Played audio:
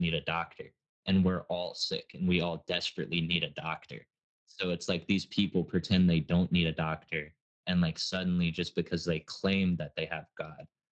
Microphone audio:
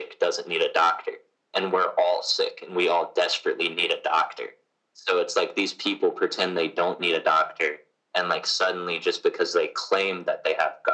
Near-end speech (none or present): none